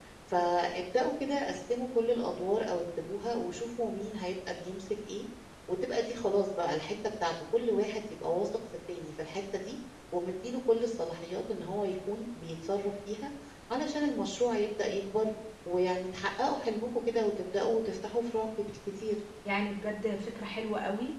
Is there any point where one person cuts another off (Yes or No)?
No